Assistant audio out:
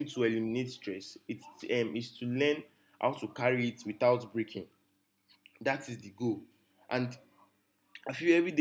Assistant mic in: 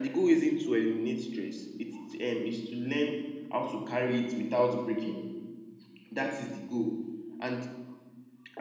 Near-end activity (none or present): none